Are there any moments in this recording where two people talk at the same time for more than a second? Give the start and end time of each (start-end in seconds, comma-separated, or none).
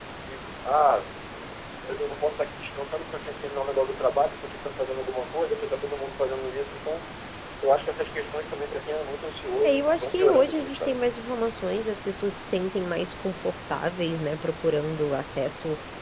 9.6-11.0